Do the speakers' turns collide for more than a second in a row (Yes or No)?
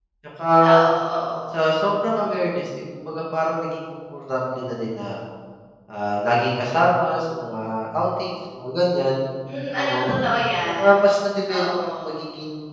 No